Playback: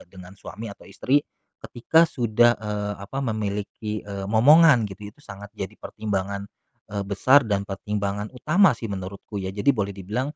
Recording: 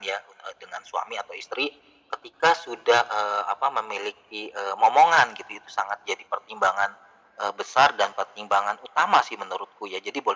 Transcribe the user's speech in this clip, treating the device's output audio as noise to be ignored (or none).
none